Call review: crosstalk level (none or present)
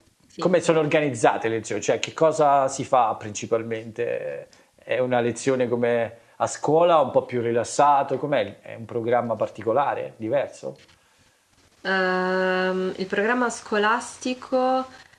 none